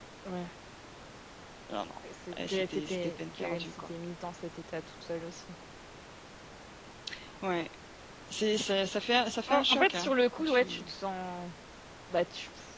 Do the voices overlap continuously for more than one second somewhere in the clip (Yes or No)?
Yes